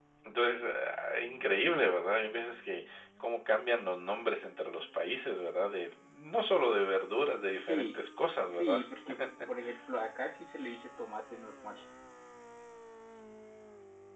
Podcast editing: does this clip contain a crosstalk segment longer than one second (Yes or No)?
No